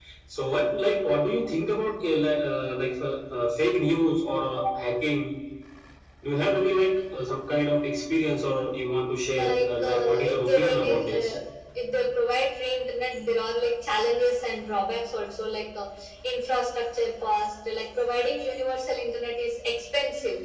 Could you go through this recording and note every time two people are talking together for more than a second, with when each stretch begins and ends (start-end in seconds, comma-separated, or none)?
9.3-11.3